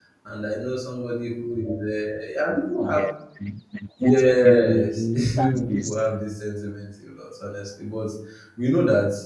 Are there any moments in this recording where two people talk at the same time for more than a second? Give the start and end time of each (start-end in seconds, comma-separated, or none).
4.0-6.0